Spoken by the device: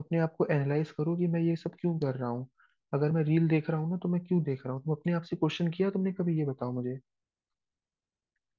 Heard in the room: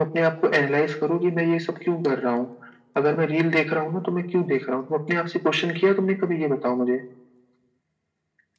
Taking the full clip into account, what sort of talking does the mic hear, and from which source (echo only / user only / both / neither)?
echo only